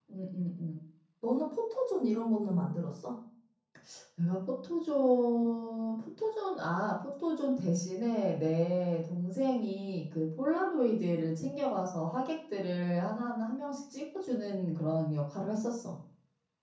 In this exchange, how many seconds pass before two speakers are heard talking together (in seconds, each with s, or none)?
none